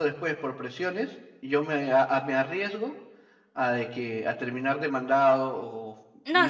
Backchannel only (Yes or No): No